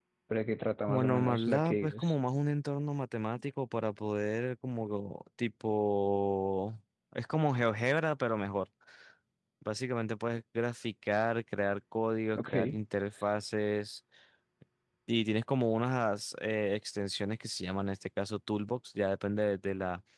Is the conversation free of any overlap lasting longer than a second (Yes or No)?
No